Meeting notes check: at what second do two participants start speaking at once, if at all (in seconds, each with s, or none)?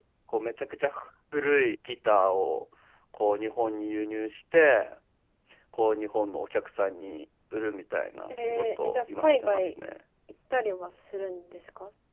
8.3 s